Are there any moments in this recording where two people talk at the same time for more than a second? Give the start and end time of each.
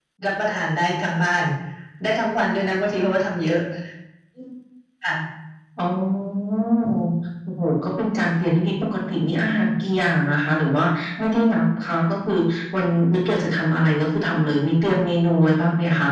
none

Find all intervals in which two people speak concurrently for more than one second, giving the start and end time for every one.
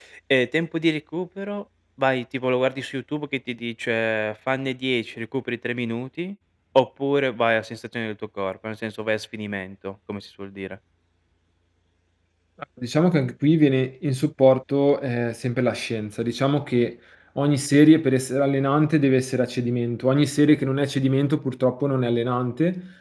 none

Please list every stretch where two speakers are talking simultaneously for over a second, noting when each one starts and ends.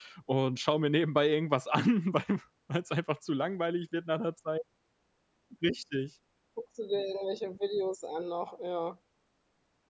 none

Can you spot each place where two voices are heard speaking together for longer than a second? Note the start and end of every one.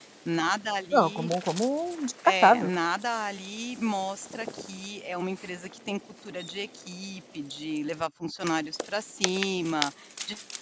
none

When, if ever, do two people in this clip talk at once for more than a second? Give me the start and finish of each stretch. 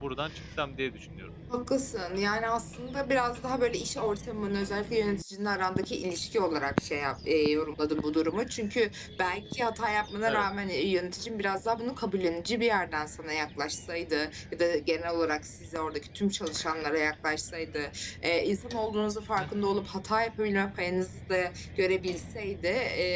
none

